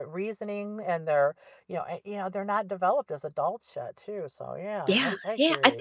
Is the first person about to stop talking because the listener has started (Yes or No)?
Yes